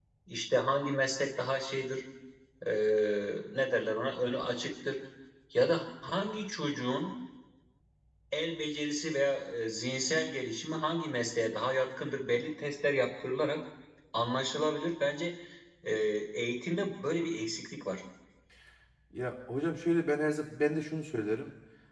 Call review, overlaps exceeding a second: none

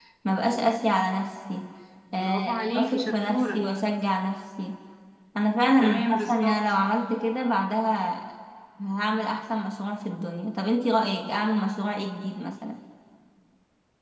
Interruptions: present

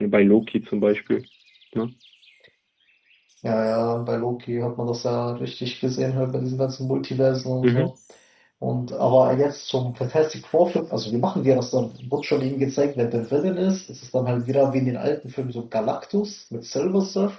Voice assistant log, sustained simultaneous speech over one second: none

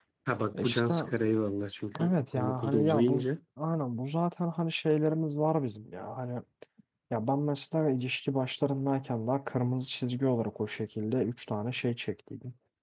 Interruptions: present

